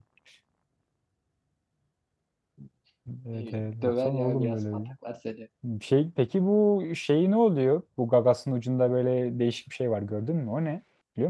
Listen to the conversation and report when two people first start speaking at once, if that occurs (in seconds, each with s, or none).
3.3 s